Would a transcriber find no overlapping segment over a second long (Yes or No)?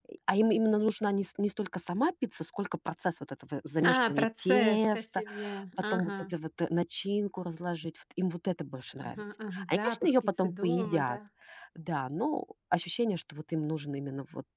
No